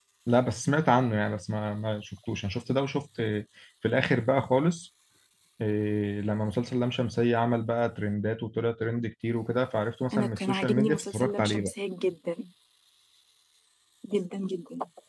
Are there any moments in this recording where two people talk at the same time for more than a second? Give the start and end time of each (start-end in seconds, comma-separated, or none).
10.1-11.7